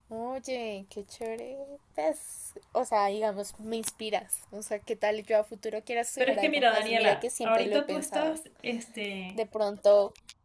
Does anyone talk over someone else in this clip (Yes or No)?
Yes